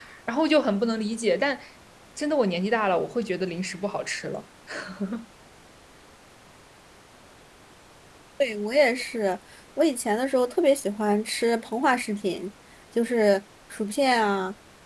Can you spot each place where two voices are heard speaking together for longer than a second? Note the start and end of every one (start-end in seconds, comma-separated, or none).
none